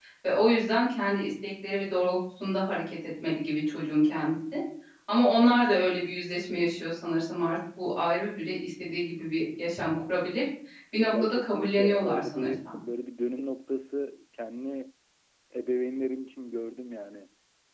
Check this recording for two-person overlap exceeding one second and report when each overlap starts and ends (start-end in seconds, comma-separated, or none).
11.1-12.8